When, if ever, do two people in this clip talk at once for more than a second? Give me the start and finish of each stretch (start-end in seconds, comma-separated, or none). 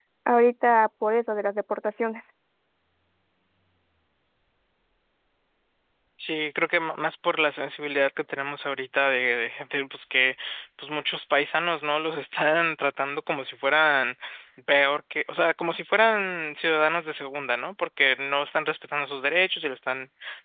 none